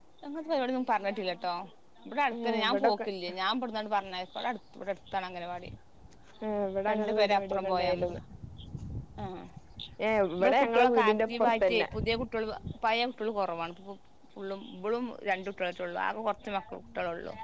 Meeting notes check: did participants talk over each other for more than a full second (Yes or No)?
Yes